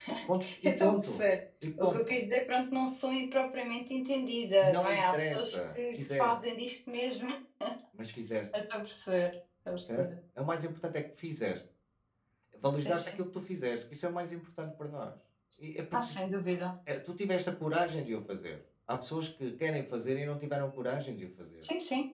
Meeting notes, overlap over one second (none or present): present